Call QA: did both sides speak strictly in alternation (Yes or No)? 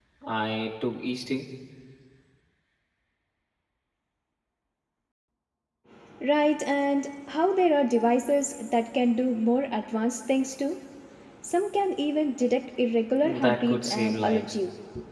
No